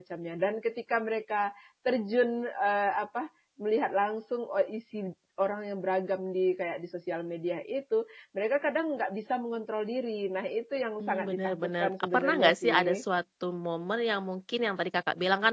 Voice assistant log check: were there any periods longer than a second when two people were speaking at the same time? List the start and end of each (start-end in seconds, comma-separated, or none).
11.0-13.0